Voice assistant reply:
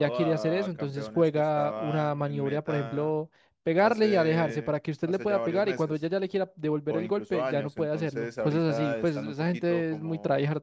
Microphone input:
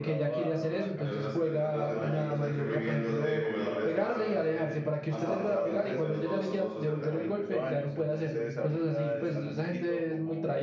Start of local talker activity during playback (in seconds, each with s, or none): 0.9 s